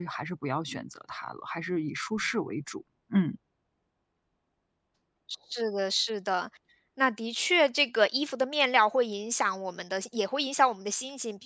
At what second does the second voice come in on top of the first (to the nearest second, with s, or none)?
none